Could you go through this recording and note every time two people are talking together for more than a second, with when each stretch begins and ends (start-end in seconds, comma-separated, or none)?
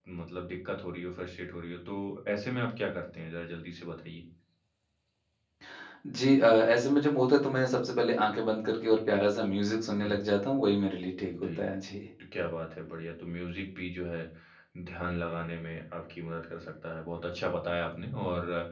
none